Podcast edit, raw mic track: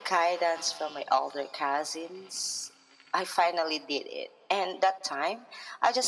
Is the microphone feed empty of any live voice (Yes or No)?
Yes